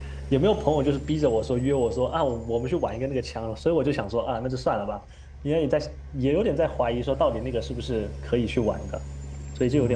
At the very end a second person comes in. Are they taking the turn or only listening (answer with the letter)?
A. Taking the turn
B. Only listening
A